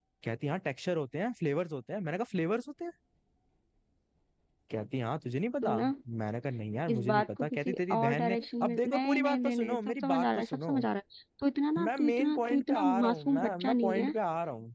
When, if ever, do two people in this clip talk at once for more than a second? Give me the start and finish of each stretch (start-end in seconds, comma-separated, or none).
6.9-10.8, 11.8-14.1